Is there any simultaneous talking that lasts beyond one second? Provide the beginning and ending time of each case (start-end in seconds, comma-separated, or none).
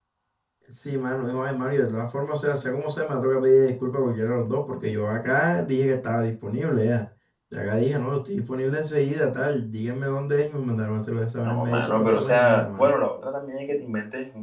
11.4-12.9